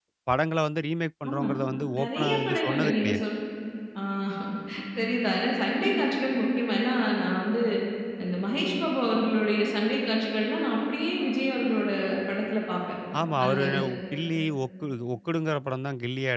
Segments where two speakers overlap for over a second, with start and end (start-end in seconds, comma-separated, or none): 2.0-3.2